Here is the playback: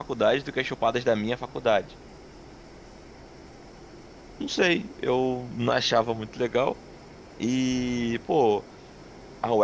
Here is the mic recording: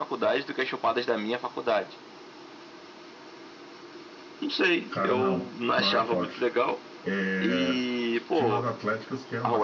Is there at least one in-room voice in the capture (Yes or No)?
Yes